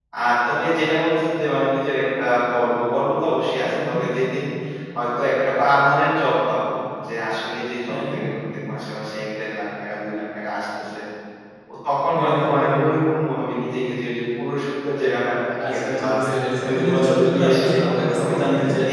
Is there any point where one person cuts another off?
Yes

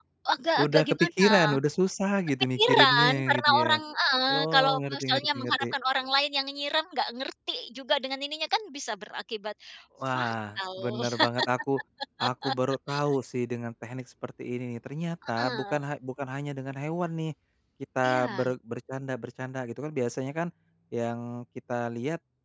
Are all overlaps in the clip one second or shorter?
No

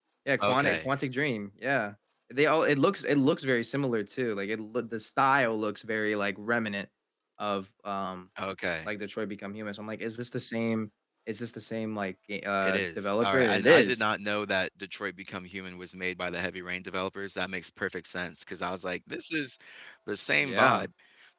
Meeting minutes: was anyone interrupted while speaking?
Yes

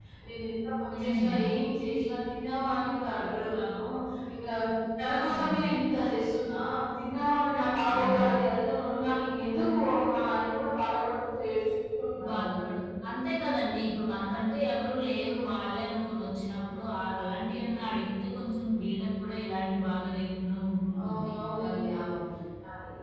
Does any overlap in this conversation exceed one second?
No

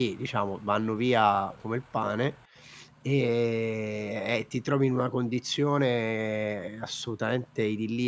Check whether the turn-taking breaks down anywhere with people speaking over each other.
No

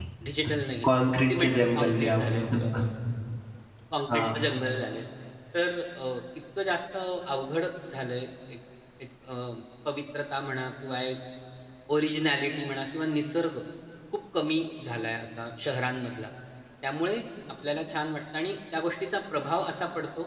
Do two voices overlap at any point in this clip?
Yes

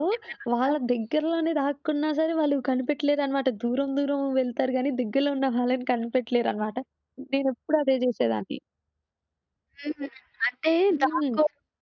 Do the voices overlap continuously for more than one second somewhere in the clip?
No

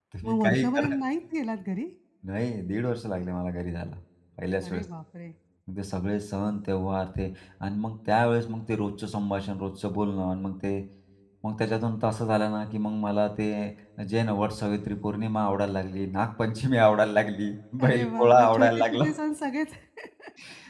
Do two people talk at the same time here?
Yes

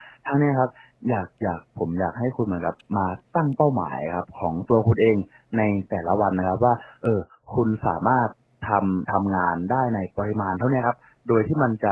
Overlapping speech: No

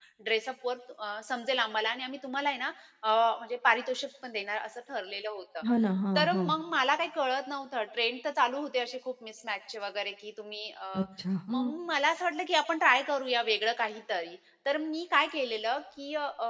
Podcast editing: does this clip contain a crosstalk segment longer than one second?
No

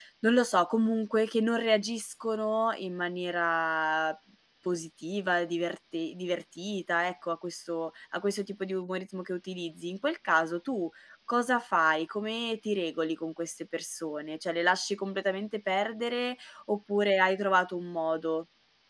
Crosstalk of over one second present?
No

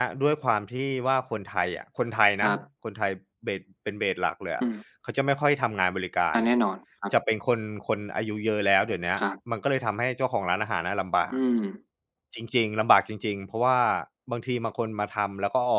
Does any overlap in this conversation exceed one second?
No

